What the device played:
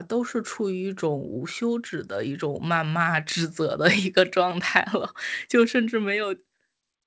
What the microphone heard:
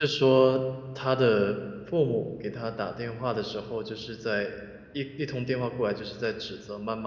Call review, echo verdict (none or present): none